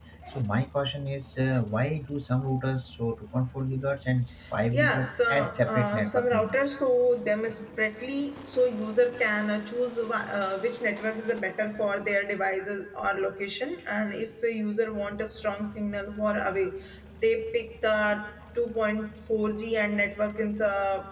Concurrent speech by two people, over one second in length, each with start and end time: 4.7-6.6

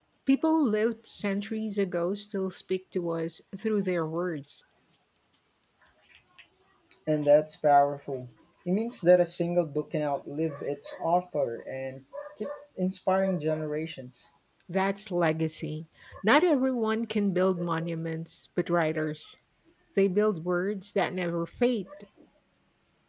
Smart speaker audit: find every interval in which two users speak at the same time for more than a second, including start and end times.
none

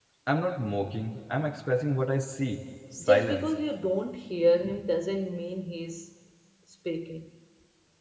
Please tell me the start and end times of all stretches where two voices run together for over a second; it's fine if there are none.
none

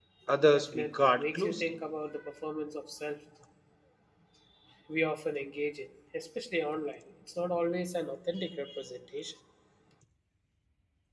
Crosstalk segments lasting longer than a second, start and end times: 0.5-1.8

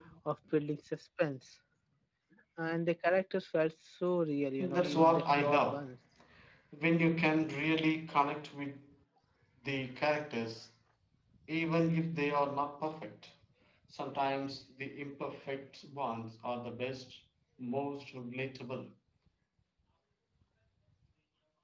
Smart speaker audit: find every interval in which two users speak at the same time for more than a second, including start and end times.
4.6-5.9

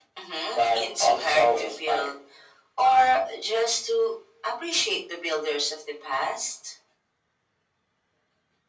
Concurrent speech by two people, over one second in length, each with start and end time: 0.5-2.1

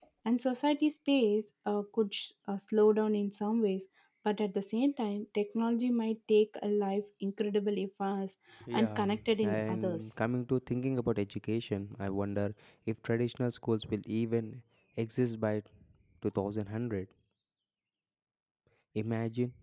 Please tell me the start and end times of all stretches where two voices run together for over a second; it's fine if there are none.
8.7-10.0

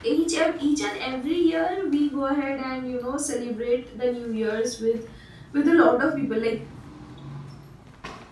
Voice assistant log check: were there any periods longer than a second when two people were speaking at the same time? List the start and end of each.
none

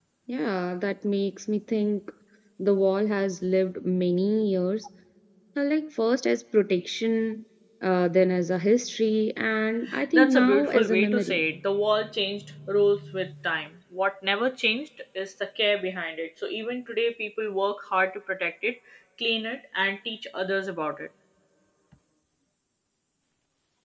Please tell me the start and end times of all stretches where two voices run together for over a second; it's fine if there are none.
10.1-11.4

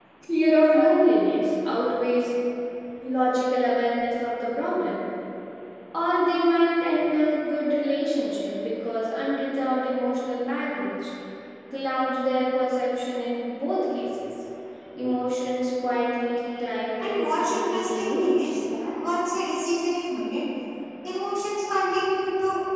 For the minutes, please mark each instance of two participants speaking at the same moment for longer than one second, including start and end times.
17.0-18.3

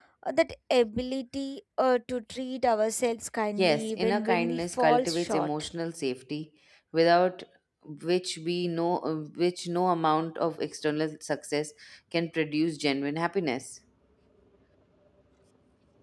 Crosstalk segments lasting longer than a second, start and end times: 3.6-5.7

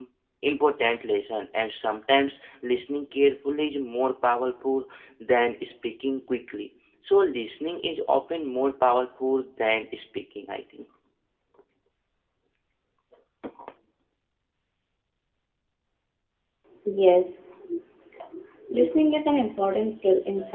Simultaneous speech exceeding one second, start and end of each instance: none

